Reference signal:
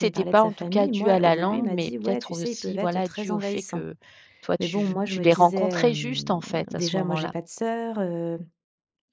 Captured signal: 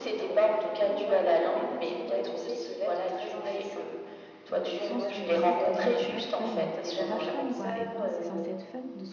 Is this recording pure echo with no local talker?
No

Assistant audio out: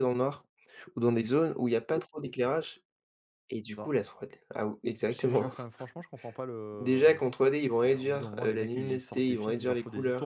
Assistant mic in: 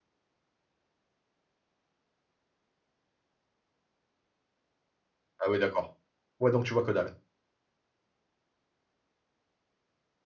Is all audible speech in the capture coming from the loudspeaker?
No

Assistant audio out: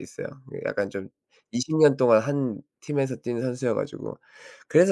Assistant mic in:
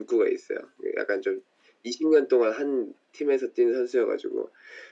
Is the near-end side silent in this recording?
Yes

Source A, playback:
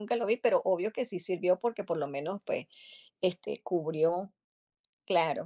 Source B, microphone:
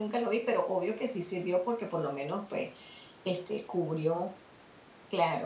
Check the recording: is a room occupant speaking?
No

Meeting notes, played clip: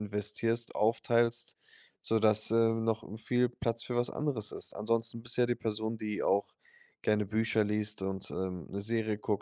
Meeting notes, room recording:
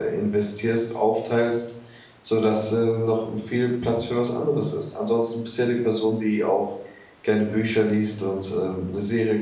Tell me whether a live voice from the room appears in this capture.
No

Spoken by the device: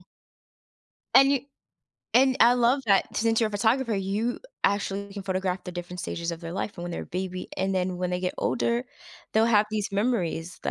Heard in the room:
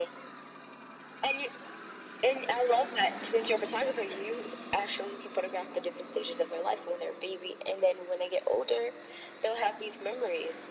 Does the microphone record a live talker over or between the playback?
No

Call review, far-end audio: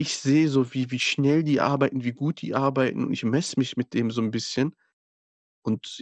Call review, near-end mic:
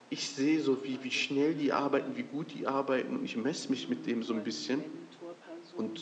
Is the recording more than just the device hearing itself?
Yes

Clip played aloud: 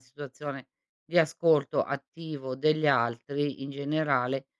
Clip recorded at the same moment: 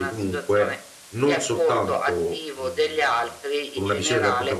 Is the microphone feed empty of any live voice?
No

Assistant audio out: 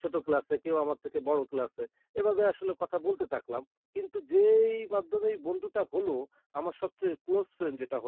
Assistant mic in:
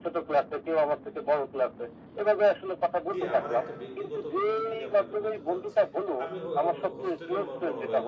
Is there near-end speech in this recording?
Yes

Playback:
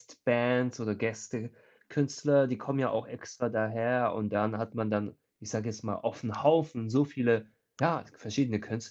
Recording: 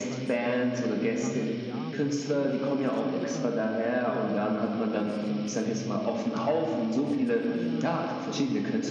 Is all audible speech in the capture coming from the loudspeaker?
No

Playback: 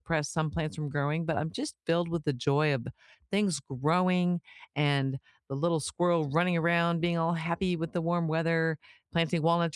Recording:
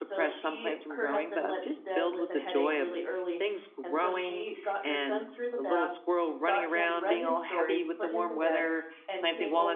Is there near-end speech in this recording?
Yes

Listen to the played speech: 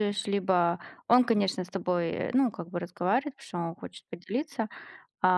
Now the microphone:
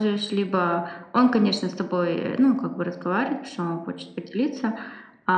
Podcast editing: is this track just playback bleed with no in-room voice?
Yes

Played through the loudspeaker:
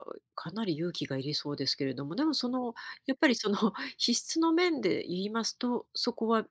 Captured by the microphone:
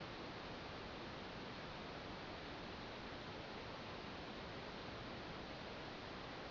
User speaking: No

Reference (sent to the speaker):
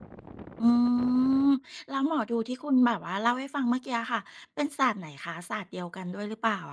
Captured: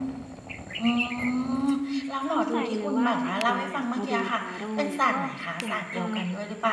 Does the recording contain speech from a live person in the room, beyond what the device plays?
Yes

